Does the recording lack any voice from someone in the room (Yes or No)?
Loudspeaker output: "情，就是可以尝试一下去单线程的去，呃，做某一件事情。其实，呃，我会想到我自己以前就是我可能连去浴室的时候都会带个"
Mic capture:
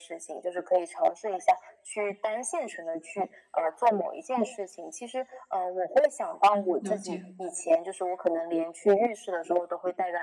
No